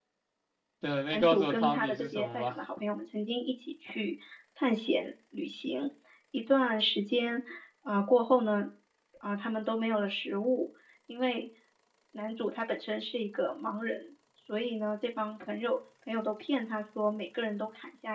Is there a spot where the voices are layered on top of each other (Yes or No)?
Yes